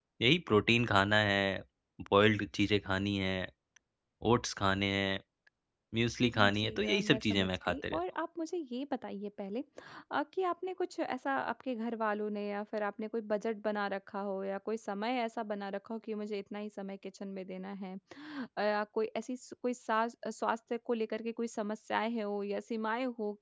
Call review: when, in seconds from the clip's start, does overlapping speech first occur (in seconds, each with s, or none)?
6.4 s